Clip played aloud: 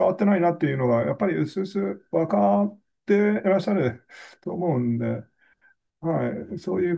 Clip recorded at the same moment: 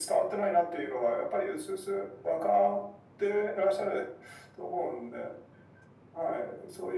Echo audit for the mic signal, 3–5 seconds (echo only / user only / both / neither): echo only